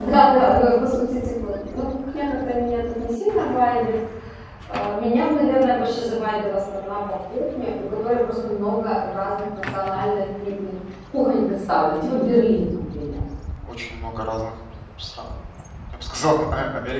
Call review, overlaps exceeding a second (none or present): none